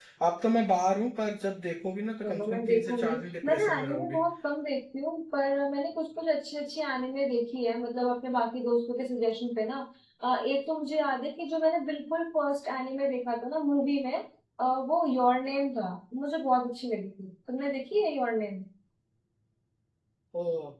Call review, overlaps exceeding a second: present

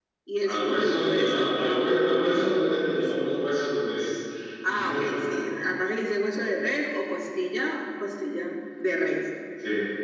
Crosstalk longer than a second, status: present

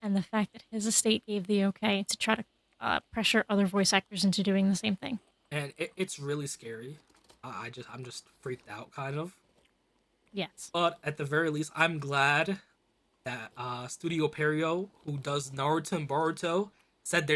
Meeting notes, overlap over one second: none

